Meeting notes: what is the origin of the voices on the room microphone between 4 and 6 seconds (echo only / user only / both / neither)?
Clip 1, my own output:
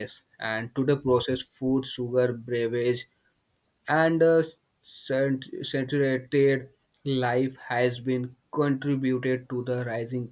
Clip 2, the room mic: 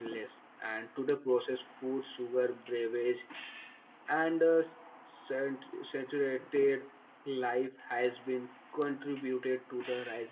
echo only